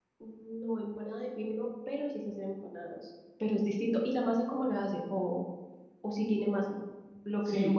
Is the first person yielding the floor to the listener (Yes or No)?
Yes